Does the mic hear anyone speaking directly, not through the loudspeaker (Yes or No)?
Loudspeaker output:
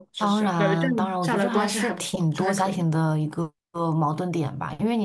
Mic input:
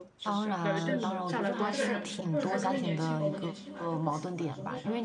Yes